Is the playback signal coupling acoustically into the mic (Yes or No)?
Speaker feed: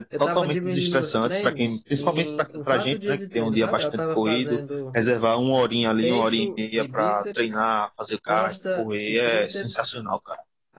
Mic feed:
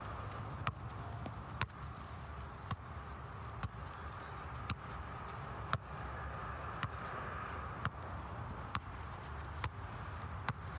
No